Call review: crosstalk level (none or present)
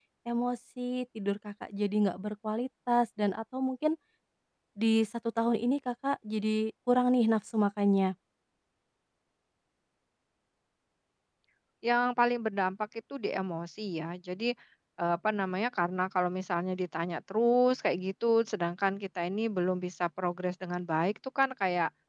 none